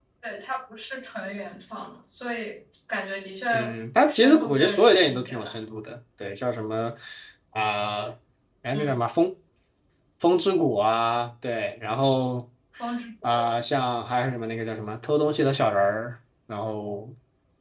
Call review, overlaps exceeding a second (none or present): present